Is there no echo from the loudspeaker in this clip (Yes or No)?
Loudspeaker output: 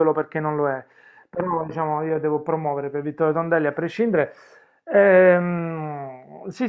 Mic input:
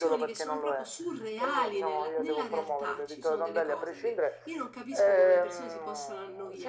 No